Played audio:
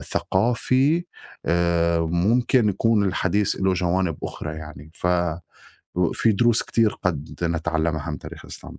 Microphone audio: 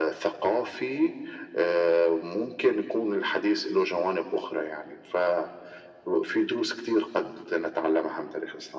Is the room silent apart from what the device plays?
Yes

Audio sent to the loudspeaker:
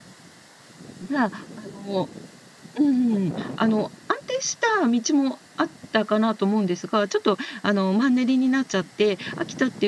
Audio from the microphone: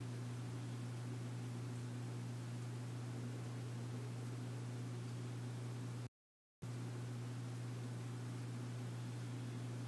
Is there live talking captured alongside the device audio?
No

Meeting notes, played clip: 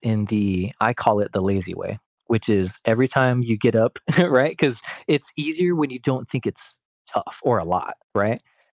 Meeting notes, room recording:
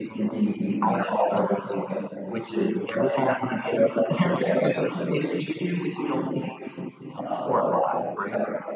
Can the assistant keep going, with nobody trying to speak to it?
Yes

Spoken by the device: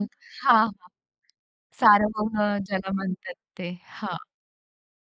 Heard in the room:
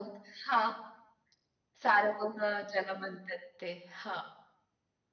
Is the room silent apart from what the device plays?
Yes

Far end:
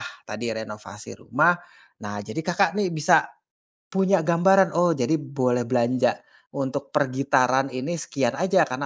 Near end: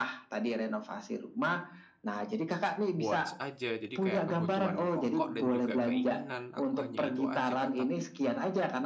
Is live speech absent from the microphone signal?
No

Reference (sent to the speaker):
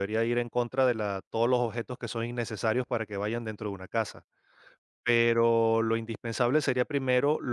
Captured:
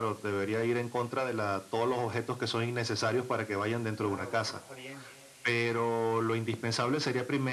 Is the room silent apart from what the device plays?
No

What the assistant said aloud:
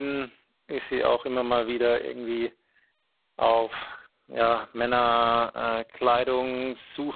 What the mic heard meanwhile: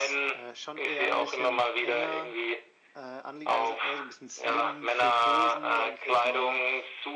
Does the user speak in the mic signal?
Yes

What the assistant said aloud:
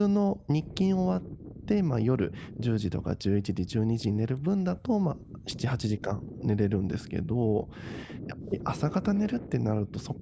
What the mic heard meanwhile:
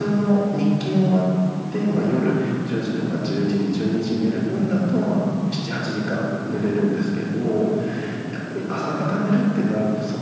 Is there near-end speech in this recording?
No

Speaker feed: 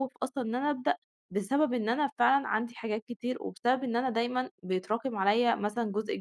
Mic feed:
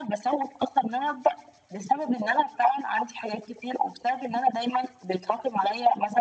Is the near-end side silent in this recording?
Yes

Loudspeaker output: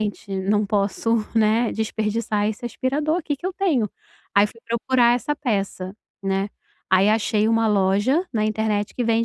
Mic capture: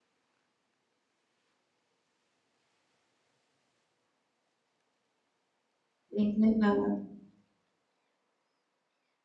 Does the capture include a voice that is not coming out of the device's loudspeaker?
Yes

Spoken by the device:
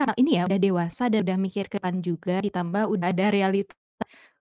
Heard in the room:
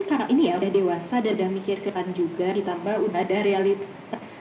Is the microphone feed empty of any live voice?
Yes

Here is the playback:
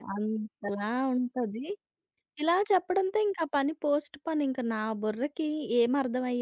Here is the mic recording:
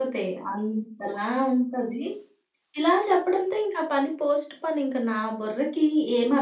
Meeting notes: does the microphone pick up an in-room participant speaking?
No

